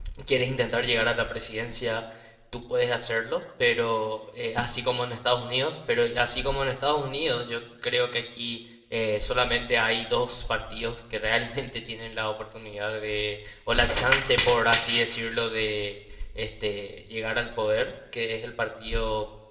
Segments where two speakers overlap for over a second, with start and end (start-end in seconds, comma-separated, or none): none